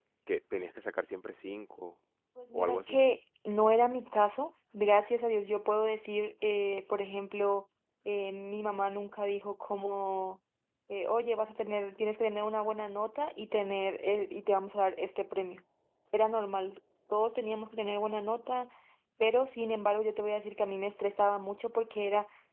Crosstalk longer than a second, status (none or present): none